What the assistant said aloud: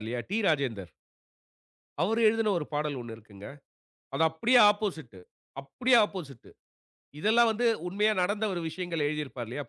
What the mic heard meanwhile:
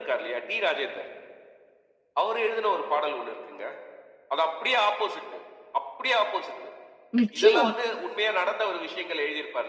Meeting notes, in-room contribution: present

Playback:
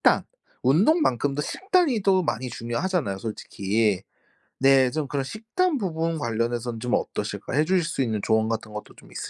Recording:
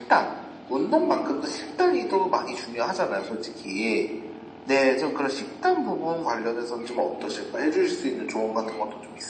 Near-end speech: none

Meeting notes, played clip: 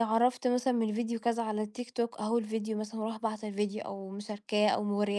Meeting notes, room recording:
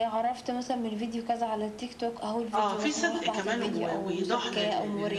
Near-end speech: present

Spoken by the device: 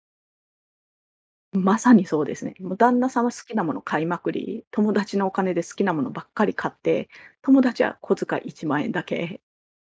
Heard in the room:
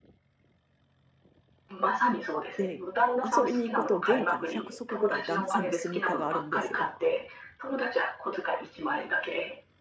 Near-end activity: present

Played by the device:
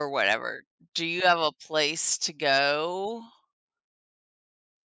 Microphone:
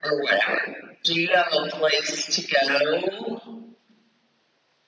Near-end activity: none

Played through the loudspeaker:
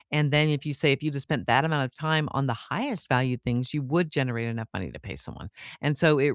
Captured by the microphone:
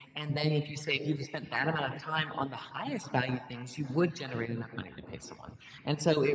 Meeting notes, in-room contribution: none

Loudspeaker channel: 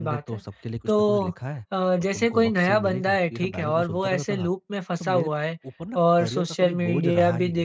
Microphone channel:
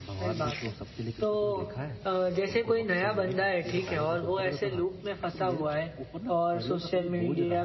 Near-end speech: none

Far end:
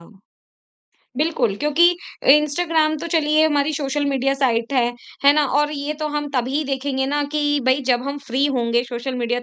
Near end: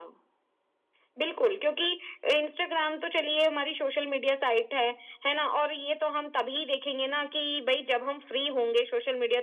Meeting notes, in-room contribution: none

